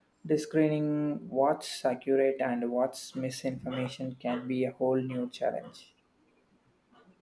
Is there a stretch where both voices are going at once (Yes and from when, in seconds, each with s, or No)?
No